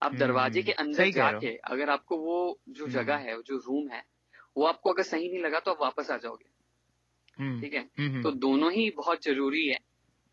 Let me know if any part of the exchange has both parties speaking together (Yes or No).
Yes